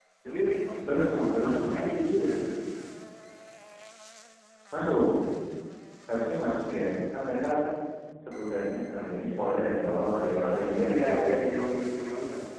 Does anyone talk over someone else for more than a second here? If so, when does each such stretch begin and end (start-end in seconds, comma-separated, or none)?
10.1-11.3